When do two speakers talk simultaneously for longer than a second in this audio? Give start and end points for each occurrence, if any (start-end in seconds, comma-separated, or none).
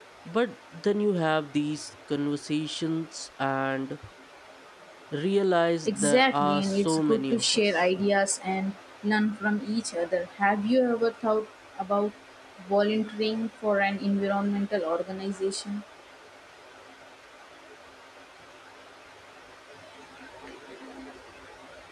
5.9-7.8